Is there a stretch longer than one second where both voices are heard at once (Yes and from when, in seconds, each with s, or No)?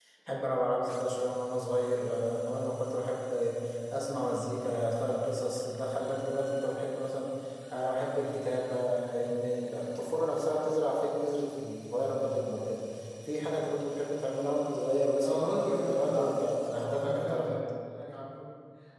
Yes, from 15.2 s